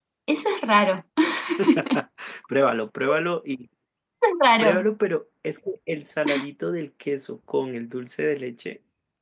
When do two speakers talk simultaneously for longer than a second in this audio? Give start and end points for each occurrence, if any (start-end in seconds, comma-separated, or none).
none